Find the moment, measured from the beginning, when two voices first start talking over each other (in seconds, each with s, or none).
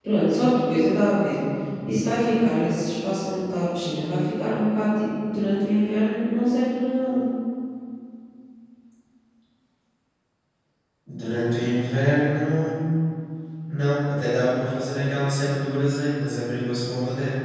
none